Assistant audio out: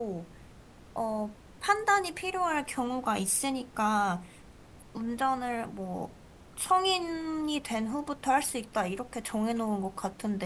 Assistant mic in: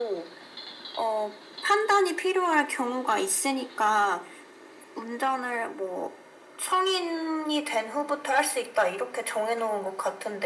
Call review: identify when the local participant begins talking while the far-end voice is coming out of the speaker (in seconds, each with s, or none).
none